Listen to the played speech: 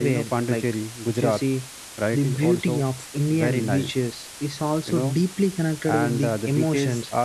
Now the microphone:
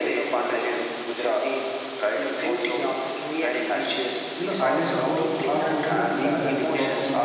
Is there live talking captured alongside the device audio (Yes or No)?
Yes